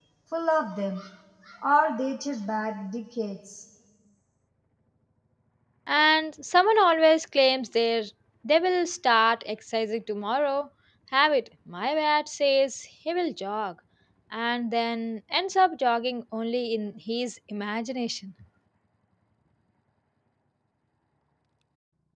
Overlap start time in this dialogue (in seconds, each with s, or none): none